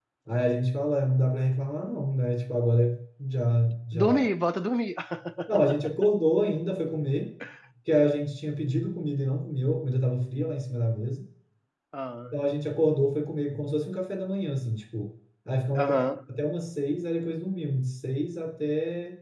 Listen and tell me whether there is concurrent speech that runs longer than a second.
No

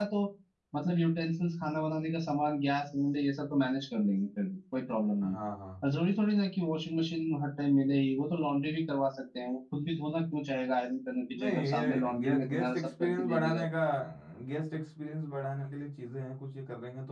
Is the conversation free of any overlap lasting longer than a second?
No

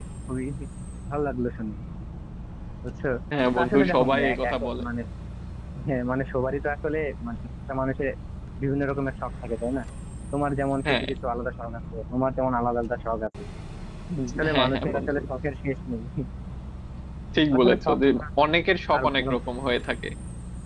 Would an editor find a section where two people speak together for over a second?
Yes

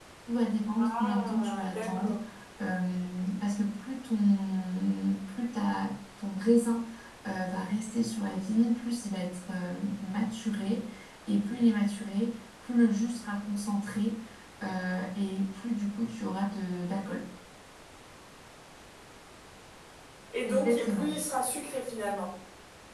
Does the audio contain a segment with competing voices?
Yes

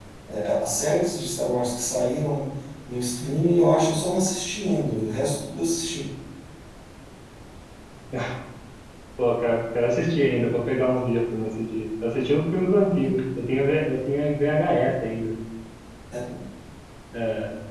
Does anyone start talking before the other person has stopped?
No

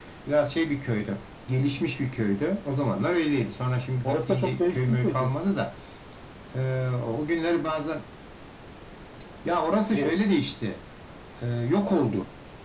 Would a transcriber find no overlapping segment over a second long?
No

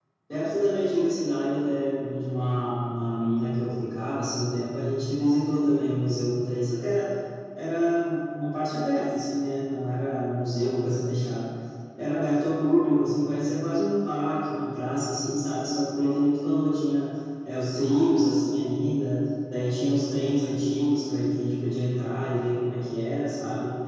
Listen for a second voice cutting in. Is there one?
No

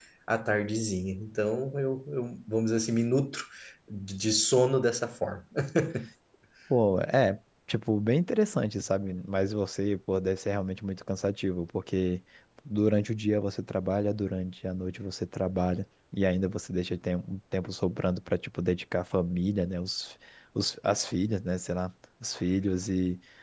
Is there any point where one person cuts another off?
No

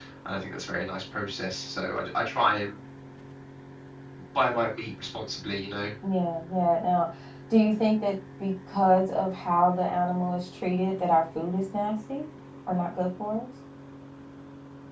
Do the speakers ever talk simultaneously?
No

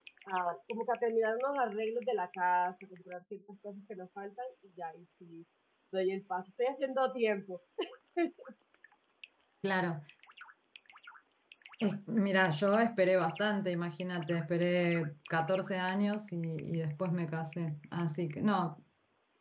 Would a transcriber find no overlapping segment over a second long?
Yes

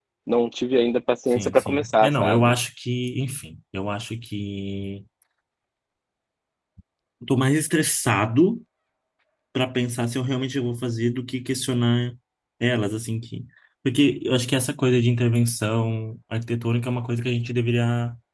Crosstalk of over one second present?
Yes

